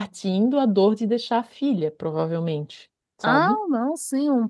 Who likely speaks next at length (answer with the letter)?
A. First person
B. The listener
B